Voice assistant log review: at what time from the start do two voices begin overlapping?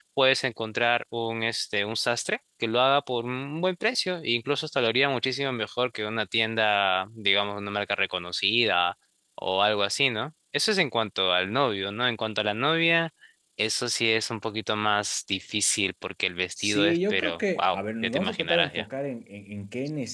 16.6 s

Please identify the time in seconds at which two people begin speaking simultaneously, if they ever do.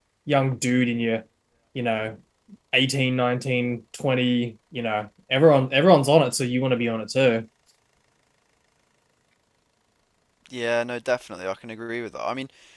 none

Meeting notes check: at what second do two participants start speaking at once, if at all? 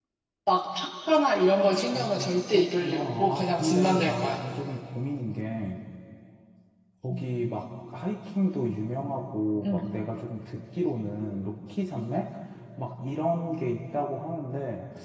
1.9 s

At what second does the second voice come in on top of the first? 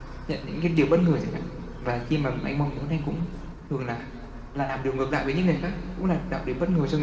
none

